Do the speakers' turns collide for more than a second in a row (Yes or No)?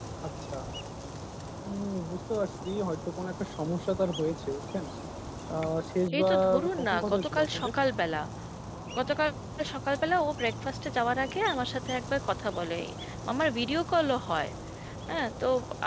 Yes